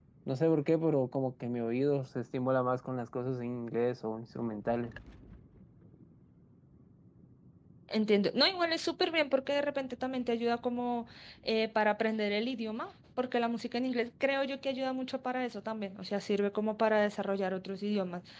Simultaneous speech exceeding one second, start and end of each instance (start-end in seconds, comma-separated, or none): none